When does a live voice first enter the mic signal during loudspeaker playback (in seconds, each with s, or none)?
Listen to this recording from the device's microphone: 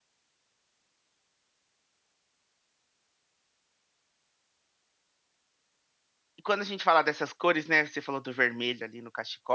6.4 s